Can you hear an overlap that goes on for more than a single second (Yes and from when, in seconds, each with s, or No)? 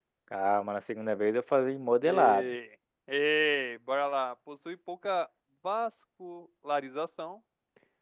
No